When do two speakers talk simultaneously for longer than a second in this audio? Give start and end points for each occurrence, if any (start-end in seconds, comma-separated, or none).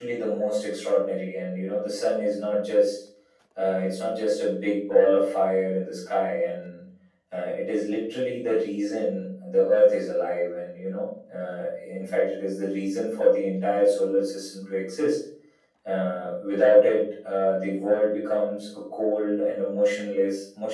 none